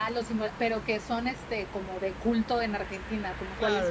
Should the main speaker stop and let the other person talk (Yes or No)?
Yes